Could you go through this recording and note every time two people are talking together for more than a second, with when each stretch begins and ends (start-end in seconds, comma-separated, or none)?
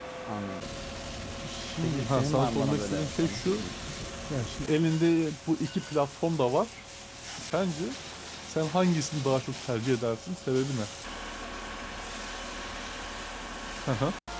1.8-3.6